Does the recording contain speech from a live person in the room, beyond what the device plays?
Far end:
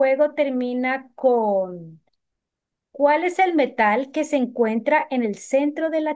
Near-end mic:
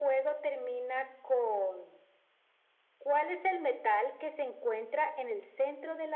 No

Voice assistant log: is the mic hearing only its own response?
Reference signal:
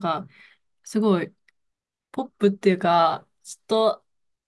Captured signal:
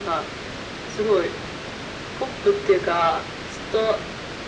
Yes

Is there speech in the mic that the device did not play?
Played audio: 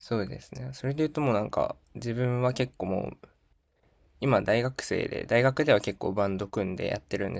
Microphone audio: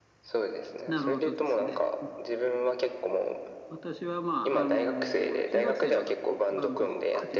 Yes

